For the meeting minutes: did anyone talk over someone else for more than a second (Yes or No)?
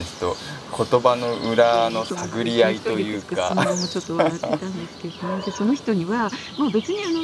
Yes